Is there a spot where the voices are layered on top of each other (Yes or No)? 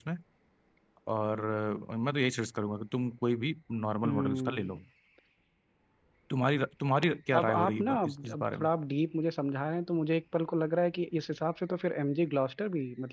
Yes